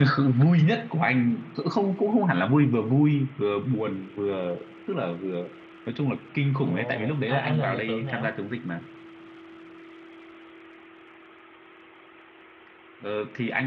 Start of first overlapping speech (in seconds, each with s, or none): 6.7 s